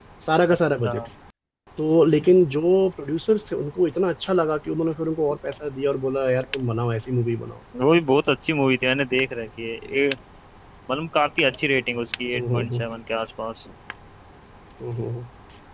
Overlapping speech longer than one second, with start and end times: none

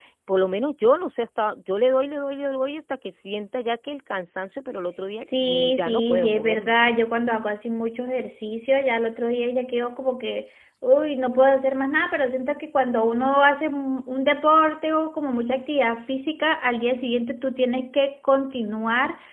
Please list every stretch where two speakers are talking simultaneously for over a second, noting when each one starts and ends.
5.4-6.7

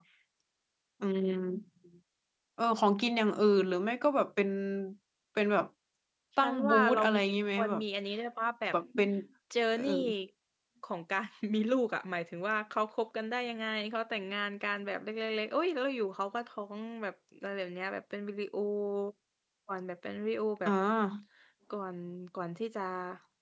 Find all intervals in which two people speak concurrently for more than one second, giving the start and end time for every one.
6.4-7.8

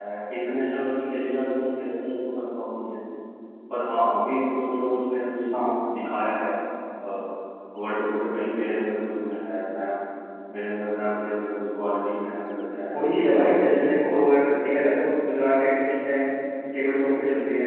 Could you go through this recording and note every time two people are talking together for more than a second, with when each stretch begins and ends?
12.9-14.1

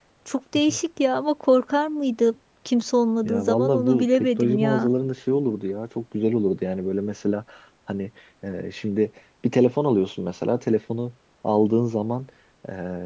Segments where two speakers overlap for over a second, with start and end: 3.2-4.9

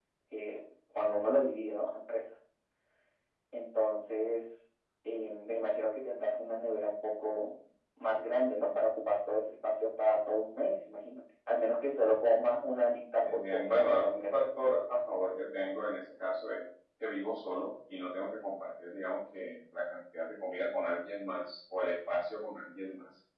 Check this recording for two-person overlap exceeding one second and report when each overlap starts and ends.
13.2-14.5

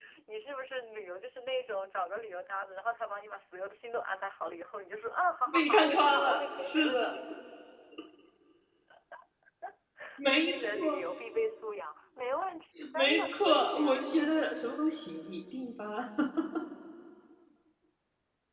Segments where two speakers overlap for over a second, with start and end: 5.5-7.2, 12.9-14.2

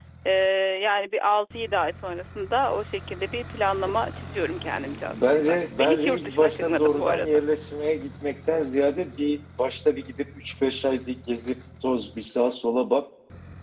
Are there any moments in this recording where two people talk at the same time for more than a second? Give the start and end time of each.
5.1-7.3

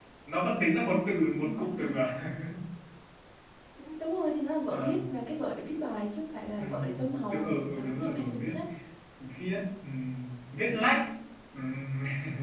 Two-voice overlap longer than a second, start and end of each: 7.3-8.5

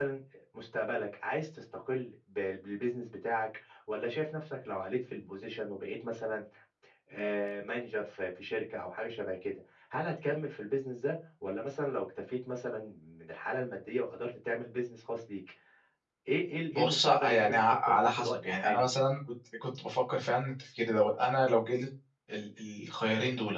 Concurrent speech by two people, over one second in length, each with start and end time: 16.7-18.9

